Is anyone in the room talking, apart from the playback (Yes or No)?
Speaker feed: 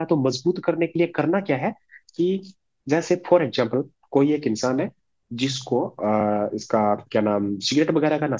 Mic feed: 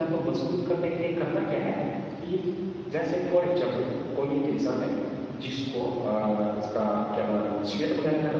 No